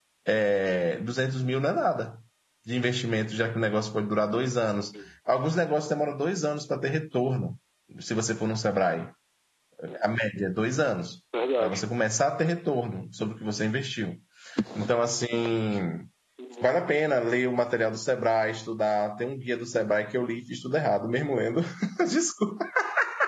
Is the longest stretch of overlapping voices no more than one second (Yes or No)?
Yes